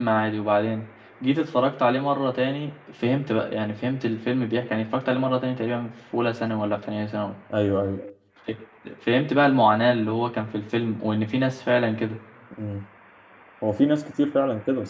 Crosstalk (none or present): none